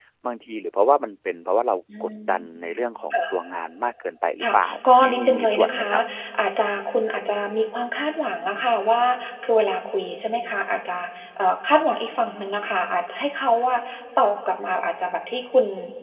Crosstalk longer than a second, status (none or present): present